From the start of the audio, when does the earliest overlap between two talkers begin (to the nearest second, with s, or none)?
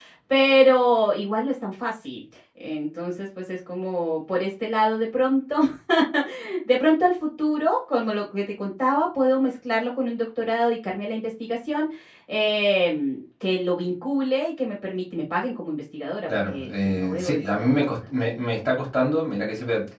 16 s